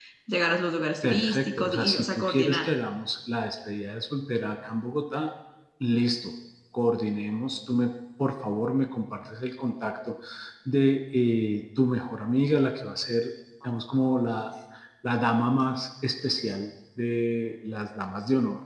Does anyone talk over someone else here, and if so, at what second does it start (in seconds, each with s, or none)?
1.0 s